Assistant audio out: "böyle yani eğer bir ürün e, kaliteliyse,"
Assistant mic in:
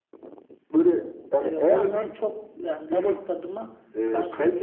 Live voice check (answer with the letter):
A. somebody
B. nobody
A